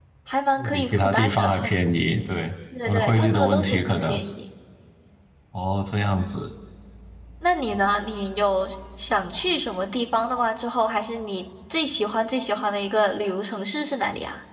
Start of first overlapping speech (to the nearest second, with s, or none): 1 s